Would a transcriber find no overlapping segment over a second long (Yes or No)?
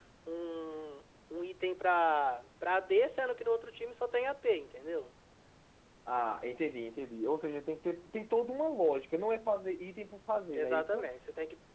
Yes